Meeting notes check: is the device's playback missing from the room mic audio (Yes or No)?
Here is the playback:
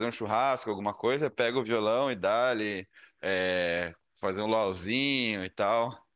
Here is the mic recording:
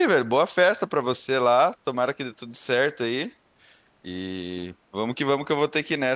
Yes